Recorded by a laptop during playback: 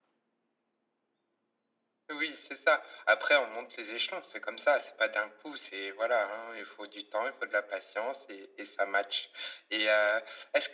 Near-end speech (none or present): none